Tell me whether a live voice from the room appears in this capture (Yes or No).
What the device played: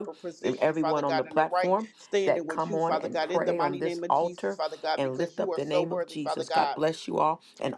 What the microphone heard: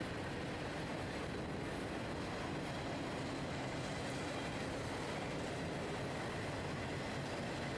No